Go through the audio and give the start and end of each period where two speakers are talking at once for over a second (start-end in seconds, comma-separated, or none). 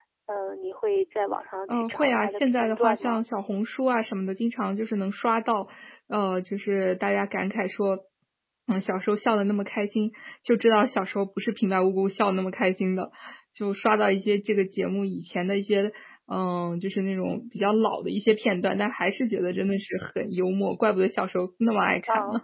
1.7-3.2